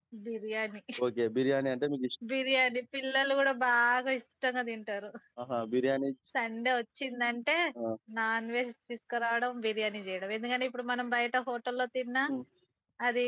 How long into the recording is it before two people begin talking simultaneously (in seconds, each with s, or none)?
none